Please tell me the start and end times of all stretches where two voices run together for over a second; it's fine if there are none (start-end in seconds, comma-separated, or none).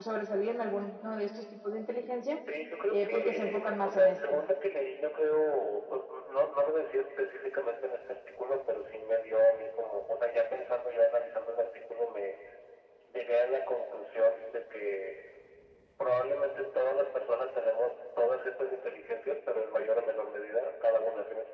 2.9-4.4